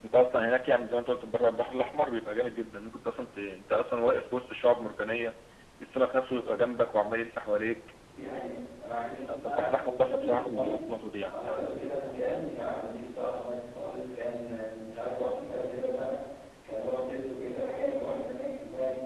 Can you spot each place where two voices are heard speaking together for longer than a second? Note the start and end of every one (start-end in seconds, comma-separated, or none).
9.3-10.8